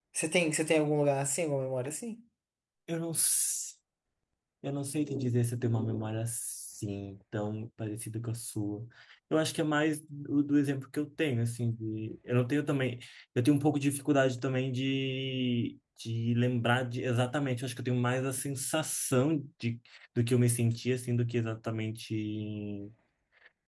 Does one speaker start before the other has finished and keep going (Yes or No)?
No